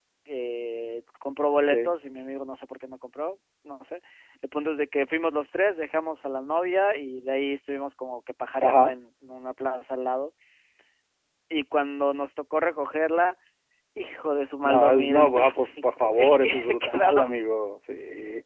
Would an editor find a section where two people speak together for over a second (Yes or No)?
Yes